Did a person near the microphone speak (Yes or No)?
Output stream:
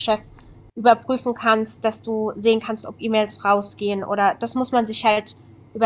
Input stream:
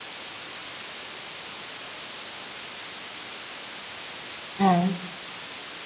Yes